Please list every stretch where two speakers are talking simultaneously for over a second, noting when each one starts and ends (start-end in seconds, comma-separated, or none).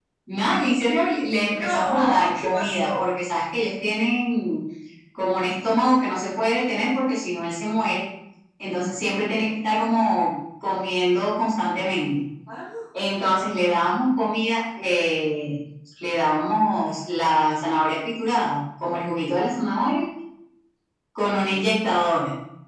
1.5-3.1